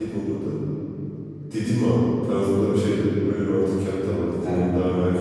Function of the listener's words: listening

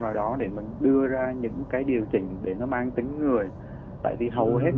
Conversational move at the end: listening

